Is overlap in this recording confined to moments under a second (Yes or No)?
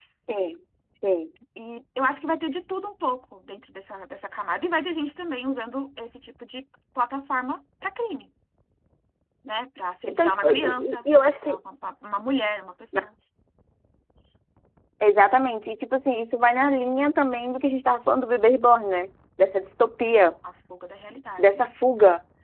No